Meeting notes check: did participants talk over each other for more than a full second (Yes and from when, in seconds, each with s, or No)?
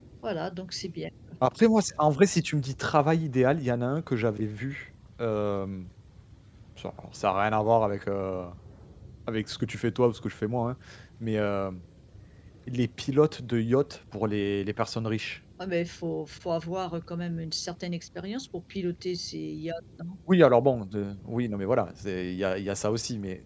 No